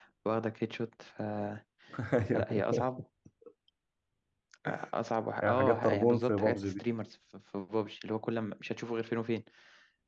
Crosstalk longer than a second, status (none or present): present